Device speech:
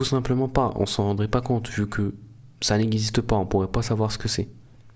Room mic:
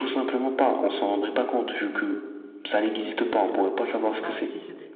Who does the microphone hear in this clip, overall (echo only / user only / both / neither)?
both